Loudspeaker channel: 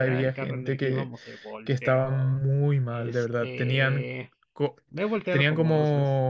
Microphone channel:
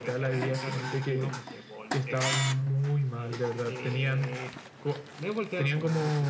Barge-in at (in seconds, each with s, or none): none